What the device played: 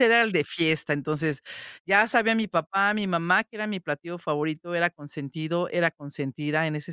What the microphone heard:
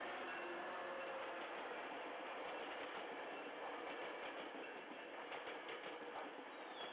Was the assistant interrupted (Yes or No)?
No